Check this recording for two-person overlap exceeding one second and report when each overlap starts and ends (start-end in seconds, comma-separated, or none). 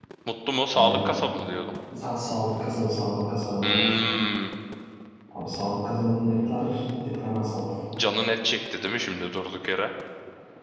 none